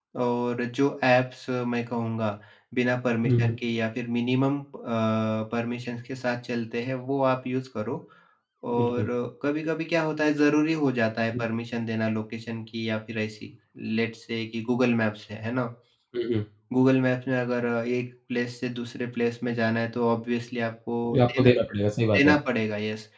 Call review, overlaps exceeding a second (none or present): none